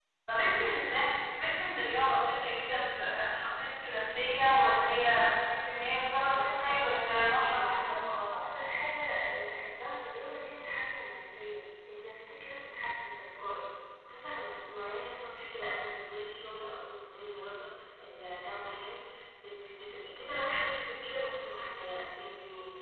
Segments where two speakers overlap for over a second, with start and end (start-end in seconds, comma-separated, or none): 6.3-8.4